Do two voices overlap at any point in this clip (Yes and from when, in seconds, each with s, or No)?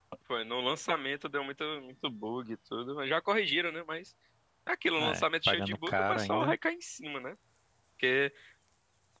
Yes, from 5.0 s